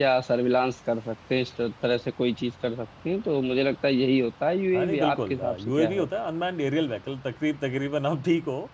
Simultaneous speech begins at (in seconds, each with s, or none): 4.7 s